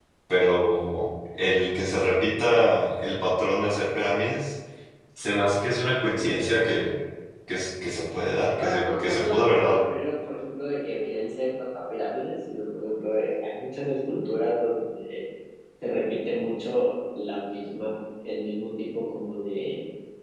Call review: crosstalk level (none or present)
present